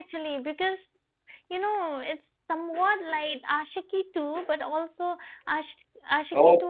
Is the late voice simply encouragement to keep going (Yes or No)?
No